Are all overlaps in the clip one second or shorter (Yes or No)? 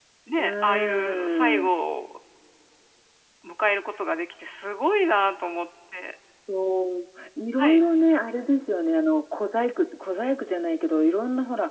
No